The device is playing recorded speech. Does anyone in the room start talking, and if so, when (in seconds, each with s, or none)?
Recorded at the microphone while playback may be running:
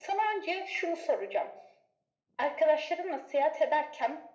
none